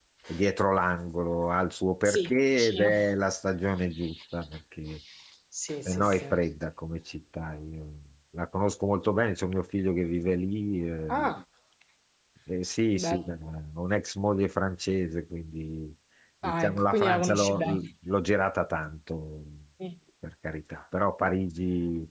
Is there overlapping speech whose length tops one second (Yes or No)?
Yes